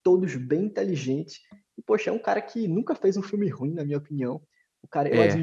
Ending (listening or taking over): listening